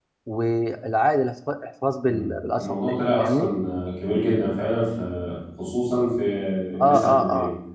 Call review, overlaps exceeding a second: present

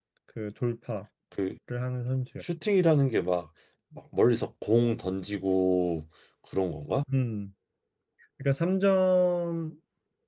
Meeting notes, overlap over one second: none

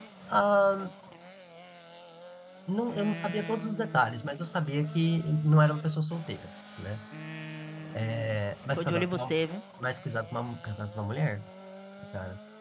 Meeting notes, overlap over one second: present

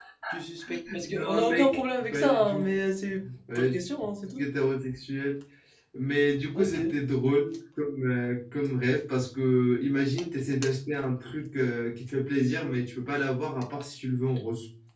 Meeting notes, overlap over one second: present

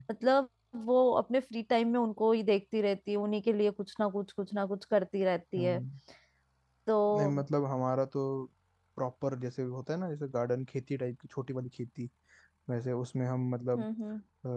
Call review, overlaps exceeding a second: none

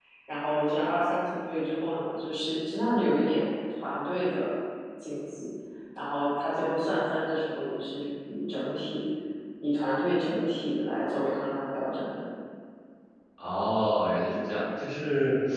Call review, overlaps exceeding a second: none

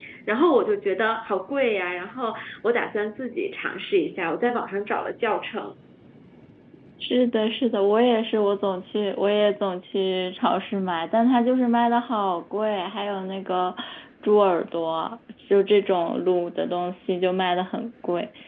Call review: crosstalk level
none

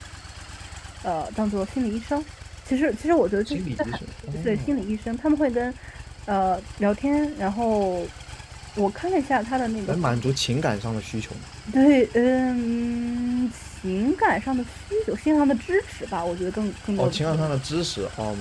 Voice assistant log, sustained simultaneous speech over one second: none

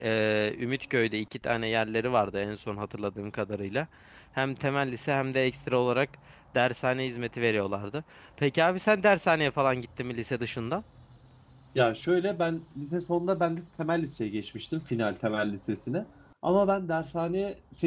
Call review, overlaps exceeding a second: none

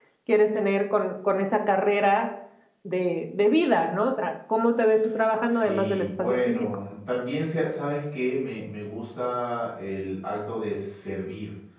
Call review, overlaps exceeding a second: present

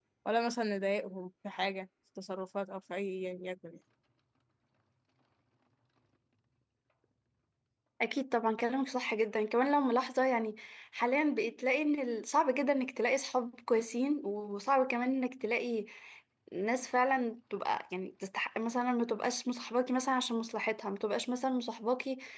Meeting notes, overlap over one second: none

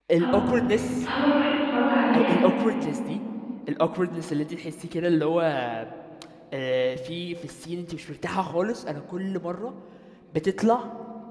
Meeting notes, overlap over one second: none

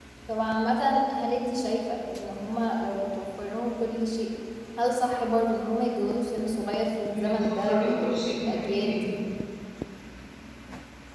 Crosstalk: present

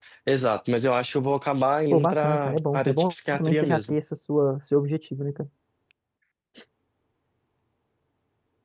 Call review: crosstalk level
present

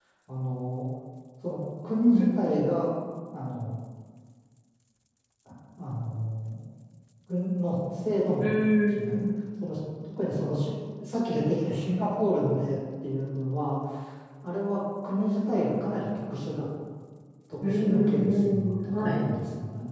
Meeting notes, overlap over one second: present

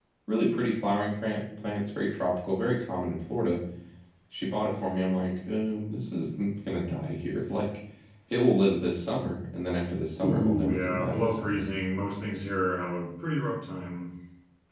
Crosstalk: present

